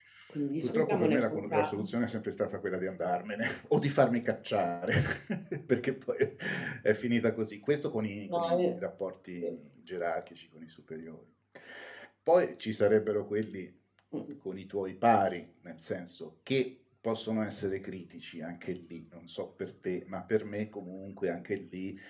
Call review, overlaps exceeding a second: present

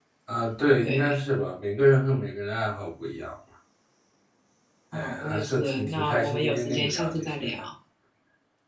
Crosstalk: present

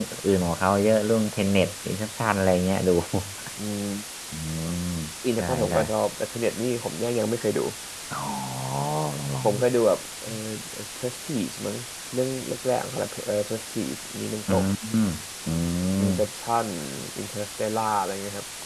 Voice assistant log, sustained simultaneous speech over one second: none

